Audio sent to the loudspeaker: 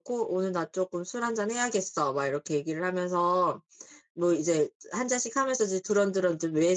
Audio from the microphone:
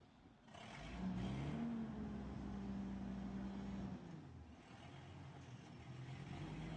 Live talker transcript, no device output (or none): none